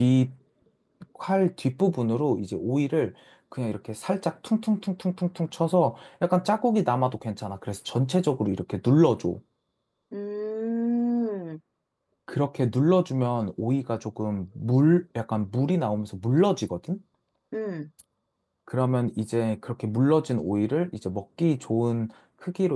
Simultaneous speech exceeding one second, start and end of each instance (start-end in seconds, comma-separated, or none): none